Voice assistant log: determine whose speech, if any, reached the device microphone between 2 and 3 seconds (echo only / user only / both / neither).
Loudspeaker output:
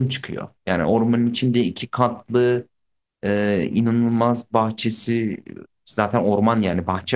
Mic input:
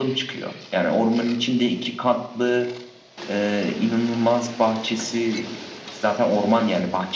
echo only